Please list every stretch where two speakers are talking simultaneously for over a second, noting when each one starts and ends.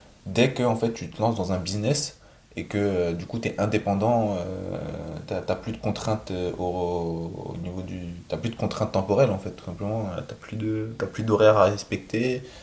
none

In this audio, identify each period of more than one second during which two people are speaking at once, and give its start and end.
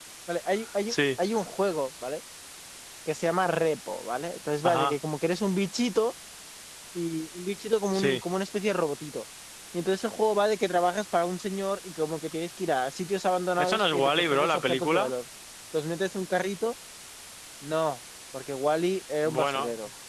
13.6-15.1

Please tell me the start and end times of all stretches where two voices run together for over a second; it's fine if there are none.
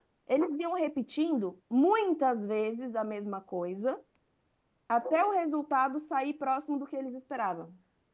none

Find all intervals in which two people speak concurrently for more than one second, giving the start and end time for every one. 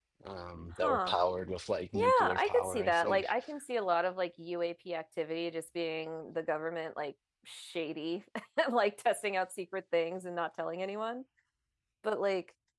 1.9-3.2

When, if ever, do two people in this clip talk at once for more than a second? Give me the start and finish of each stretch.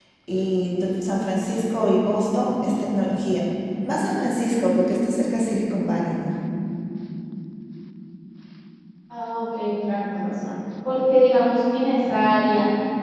none

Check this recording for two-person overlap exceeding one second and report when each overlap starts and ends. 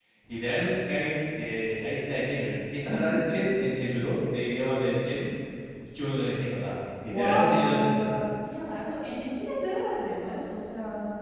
7.0-8.2

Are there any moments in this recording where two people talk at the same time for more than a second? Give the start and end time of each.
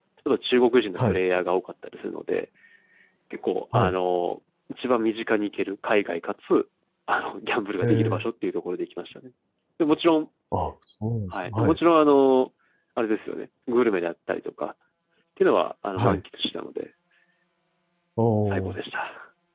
none

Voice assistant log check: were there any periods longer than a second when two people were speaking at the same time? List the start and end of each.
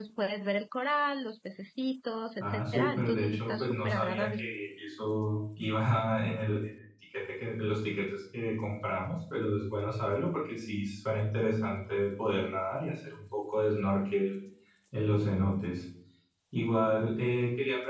2.4-4.4

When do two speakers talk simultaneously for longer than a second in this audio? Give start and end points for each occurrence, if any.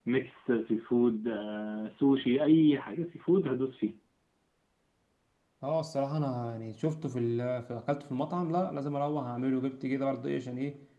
none

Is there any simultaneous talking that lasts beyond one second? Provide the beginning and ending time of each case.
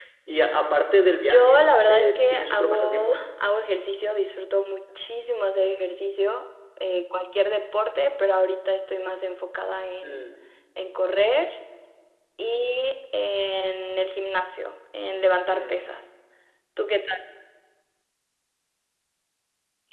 1.2-3.2

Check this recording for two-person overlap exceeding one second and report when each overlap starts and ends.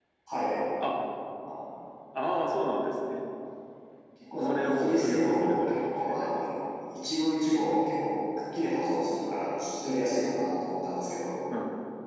4.4-6.4

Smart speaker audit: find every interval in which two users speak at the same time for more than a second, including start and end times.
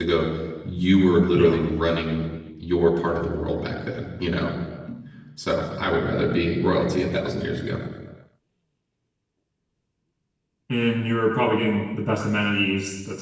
none

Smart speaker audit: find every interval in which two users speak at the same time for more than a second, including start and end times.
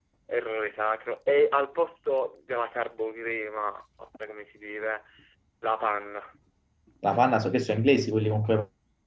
none

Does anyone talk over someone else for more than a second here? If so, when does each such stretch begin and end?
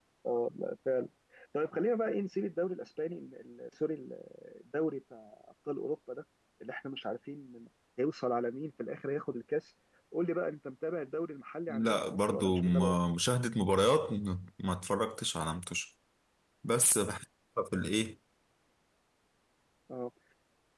11.7-12.9

